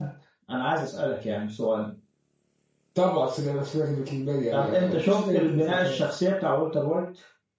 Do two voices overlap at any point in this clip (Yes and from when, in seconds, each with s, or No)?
Yes, from 4.5 s